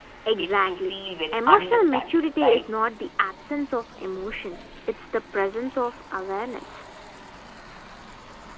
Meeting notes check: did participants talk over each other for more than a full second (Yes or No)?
Yes